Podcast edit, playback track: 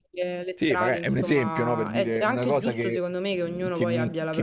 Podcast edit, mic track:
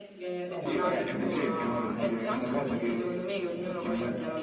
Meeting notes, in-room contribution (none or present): present